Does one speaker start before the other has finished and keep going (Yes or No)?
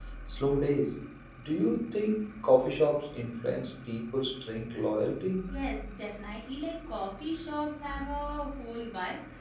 No